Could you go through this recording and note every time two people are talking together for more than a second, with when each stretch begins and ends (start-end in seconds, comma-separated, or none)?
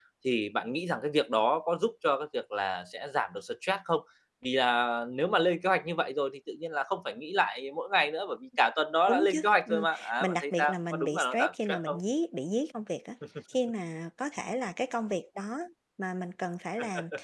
9.1-12.0